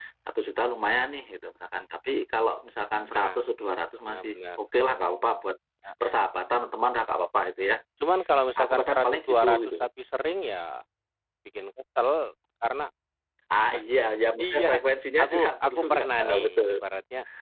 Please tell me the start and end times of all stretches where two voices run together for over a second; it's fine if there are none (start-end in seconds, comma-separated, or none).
8.6-9.8, 15.2-16.7